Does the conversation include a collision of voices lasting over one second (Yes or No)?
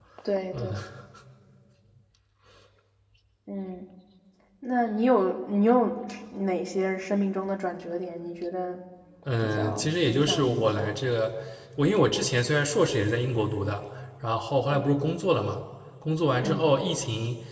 Yes